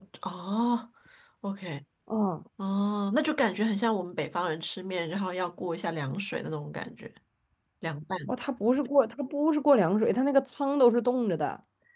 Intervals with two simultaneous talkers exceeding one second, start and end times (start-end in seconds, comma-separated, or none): none